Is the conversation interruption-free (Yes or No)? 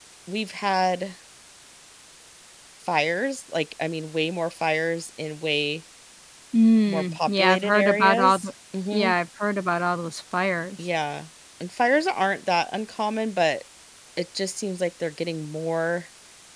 No